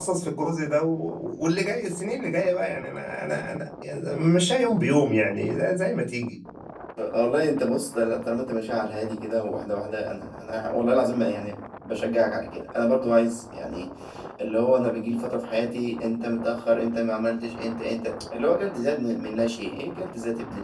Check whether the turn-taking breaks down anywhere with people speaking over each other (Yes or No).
No